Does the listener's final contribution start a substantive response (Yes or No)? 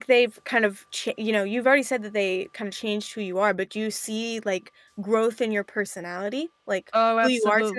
Yes